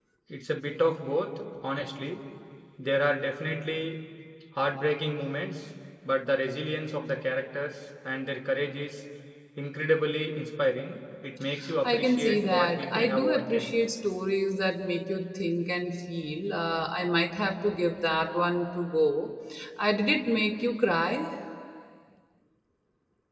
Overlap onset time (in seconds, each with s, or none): 11.6 s